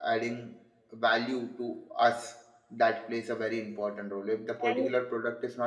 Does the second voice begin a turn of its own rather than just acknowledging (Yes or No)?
No